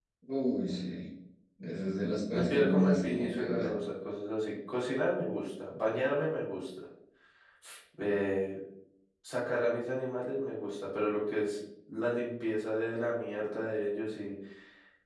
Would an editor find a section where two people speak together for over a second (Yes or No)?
Yes